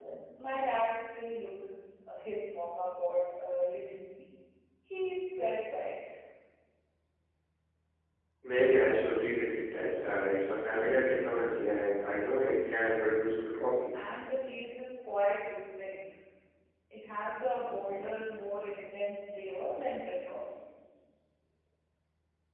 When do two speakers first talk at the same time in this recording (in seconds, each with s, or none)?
none